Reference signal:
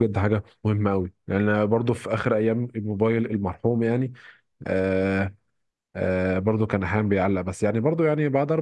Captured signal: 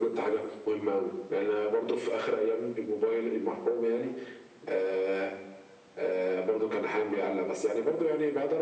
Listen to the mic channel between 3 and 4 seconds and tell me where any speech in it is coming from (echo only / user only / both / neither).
echo only